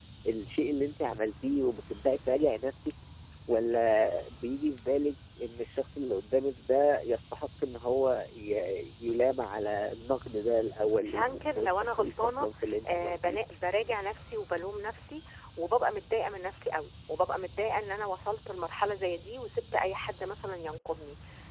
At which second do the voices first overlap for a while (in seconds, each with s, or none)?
11.0 s